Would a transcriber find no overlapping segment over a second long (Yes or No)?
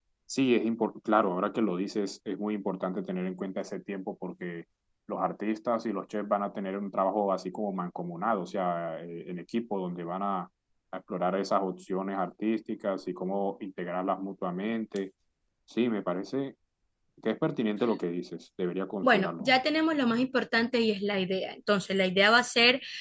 Yes